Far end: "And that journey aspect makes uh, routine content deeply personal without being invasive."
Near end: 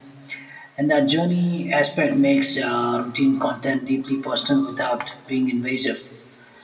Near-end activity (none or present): none